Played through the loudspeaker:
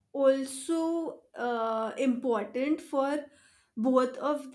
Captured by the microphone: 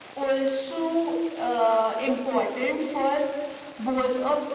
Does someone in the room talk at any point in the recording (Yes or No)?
No